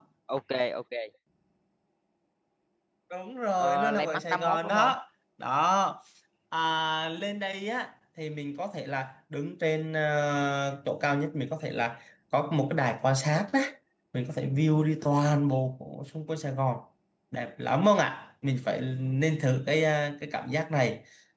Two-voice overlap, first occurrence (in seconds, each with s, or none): 3.6 s